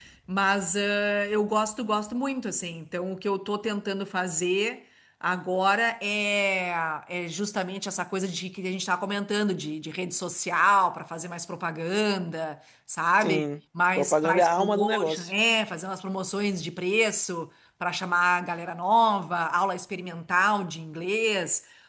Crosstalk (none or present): present